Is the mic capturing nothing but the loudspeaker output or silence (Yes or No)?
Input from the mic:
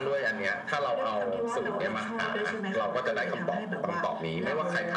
Yes